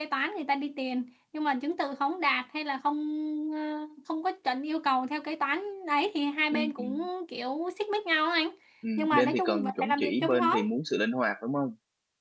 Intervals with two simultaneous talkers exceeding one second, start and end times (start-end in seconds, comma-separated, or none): 9.0-10.6